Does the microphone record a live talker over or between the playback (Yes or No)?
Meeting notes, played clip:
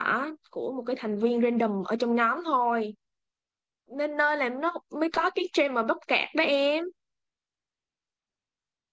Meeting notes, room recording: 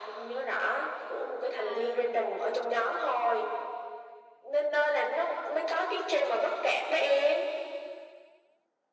Yes